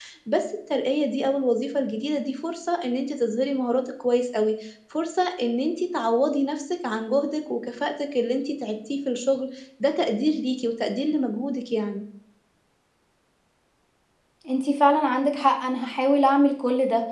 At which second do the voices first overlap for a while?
none

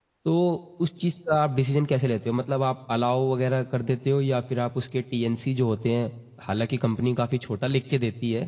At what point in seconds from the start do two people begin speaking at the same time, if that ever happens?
none

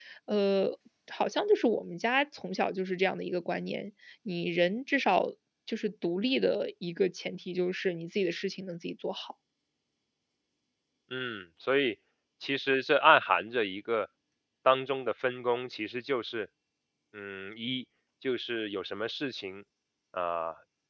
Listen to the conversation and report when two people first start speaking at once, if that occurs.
none

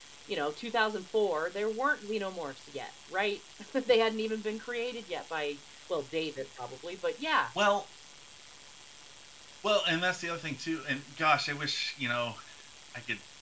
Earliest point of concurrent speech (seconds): none

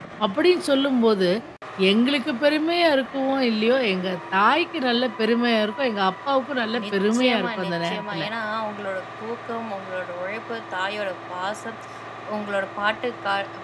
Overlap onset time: 6.8 s

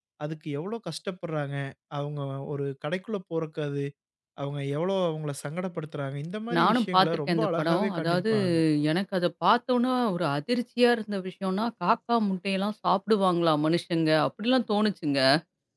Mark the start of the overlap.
6.5 s

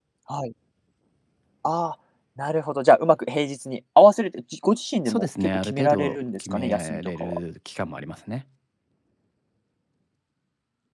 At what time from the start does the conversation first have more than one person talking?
5.0 s

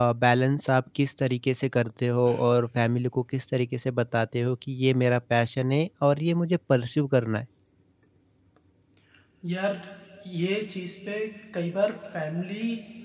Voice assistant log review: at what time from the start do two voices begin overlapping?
none

